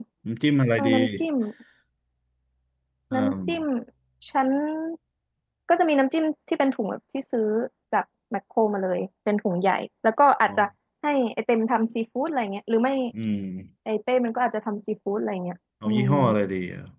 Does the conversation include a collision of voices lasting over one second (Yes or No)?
No